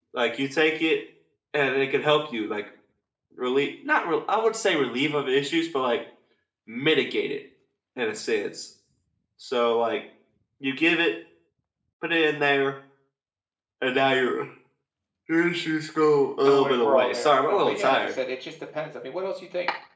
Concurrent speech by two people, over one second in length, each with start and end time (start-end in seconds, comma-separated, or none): 16.4-18.2